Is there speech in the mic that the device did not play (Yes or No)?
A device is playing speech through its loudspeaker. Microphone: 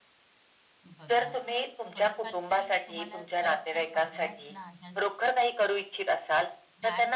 Yes